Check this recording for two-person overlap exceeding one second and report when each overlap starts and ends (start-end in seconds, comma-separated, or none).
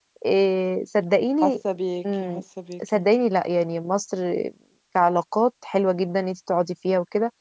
none